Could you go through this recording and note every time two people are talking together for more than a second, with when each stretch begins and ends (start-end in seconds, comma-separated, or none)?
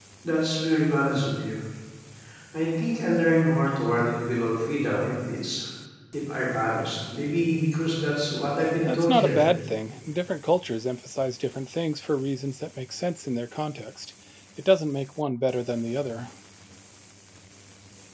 none